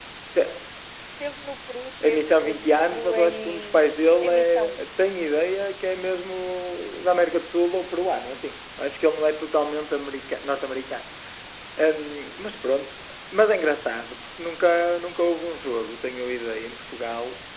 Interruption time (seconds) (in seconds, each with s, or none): 2.0 s